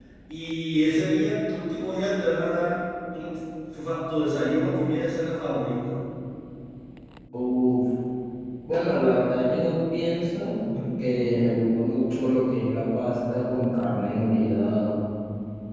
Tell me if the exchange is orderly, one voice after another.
Yes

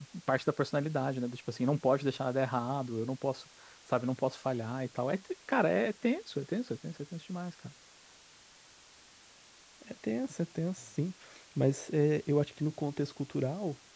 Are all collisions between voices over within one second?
Yes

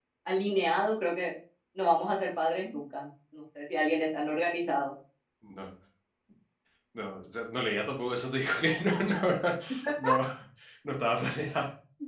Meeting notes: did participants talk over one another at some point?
No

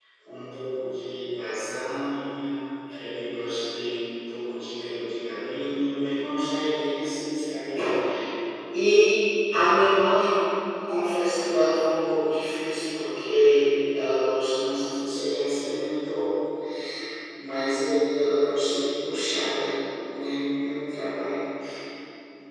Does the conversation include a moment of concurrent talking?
No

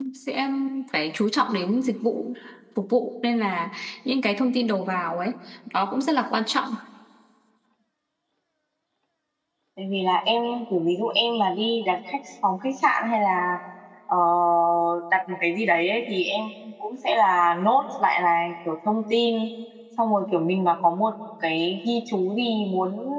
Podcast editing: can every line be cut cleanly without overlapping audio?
Yes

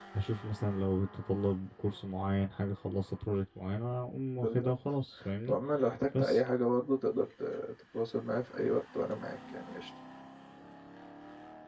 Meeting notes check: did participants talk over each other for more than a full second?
No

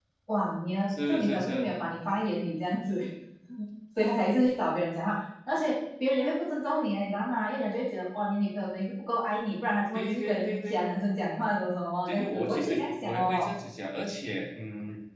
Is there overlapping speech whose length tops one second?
Yes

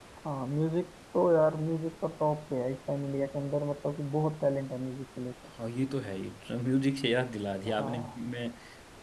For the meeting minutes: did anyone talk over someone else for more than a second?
No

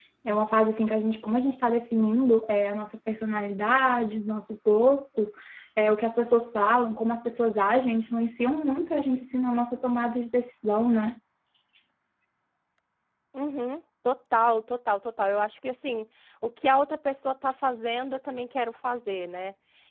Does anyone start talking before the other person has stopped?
No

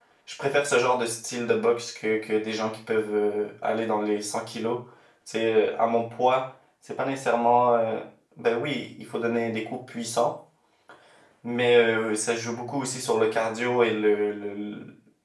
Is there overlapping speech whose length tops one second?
No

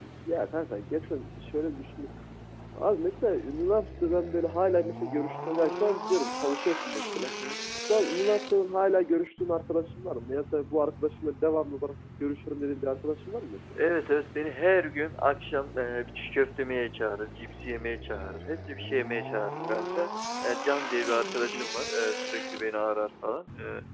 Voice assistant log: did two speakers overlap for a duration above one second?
No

